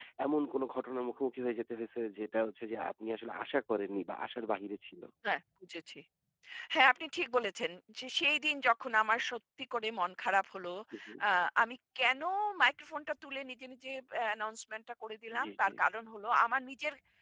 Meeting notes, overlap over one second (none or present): none